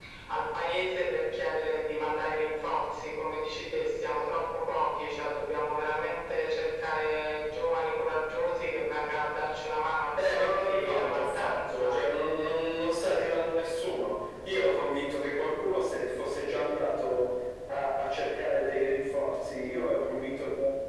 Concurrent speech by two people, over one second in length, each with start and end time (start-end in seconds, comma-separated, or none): 10.2-11.9